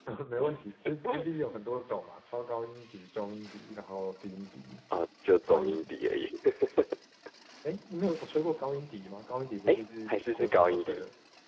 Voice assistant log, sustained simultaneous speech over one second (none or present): present